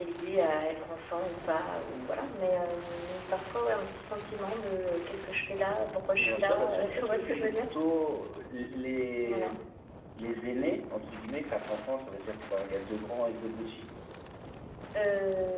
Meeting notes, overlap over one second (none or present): present